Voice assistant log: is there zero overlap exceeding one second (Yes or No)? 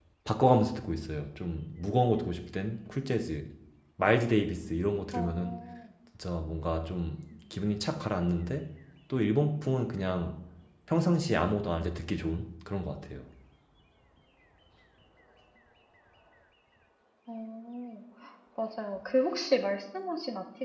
Yes